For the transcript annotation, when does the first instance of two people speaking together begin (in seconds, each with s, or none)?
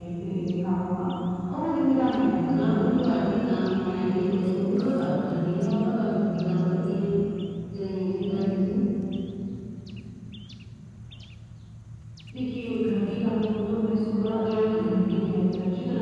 1.9 s